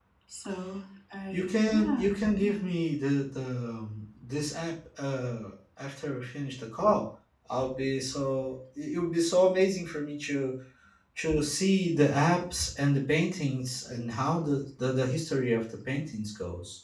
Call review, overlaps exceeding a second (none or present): present